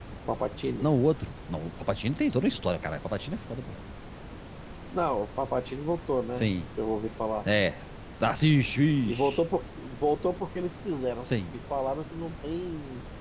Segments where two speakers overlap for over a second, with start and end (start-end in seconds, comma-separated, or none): none